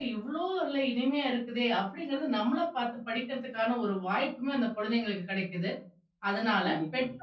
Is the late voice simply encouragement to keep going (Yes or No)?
Yes